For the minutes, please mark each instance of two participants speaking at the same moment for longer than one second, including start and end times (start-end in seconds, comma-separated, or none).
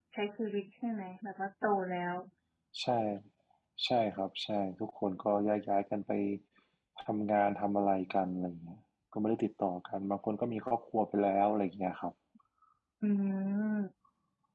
none